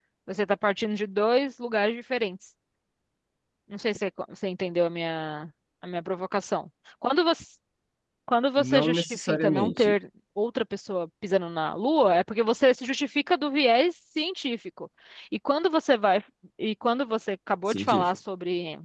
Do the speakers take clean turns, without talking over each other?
No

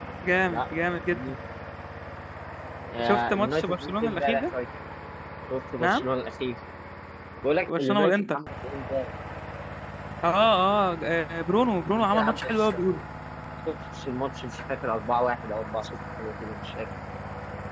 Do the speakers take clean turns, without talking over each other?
No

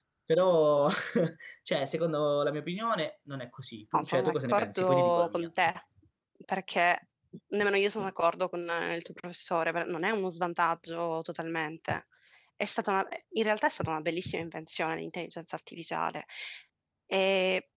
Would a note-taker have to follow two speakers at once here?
Yes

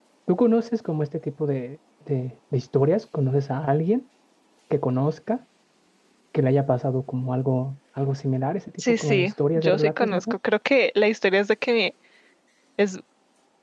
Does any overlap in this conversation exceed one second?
Yes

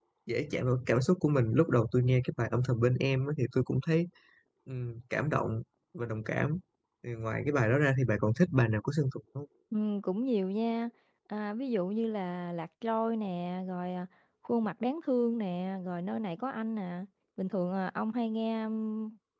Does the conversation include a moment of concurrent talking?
No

